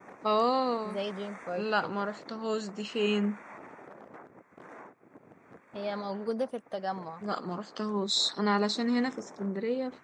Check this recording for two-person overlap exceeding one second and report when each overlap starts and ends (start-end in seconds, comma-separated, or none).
none